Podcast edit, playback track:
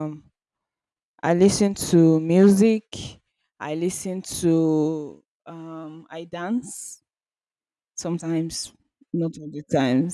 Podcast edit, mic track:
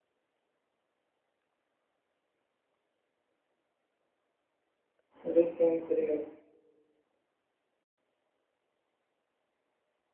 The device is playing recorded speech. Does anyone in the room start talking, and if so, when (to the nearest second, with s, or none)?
5 s